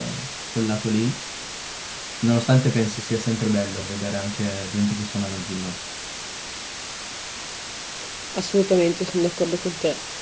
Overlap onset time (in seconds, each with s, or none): none